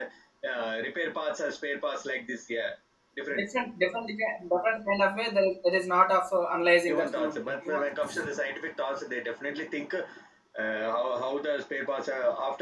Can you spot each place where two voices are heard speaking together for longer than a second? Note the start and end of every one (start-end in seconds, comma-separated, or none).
6.9-8.2